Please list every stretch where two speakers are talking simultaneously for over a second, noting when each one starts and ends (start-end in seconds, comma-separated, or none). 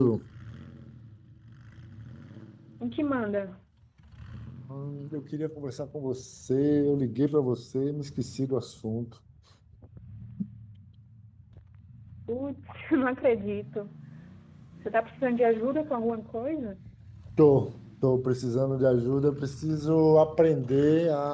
none